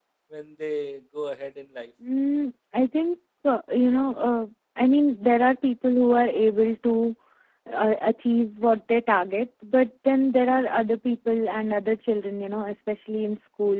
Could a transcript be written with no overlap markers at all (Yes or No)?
Yes